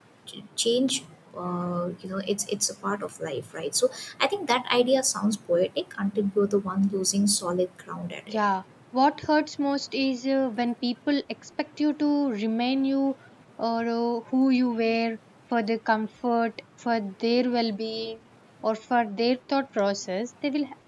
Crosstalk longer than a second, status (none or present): none